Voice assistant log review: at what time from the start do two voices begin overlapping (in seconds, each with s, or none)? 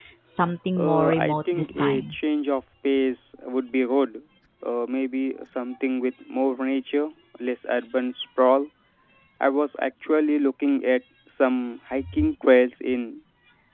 0.8 s